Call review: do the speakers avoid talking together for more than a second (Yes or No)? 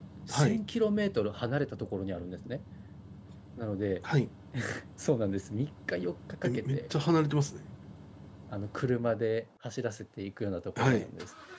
Yes